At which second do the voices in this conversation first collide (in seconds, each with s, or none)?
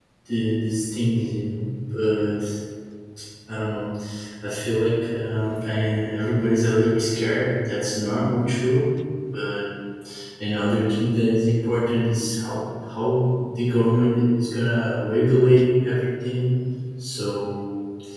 none